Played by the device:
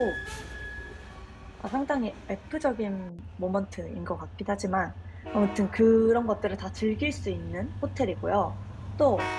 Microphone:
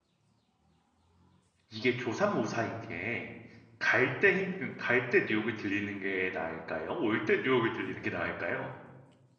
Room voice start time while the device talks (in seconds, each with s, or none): 1.7 s